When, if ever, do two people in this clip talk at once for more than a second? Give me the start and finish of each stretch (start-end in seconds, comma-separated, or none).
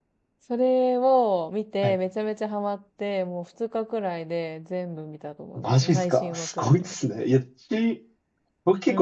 5.6-6.9